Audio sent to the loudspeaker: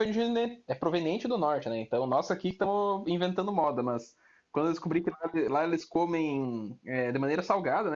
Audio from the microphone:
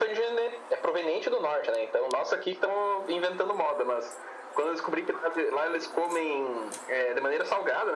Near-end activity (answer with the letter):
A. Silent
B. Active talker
A